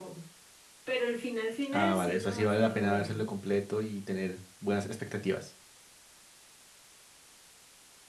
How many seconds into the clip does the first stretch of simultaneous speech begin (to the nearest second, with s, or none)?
2 s